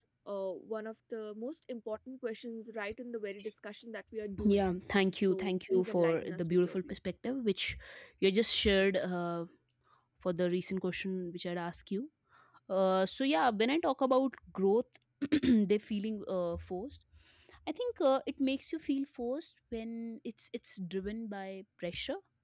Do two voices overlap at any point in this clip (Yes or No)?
Yes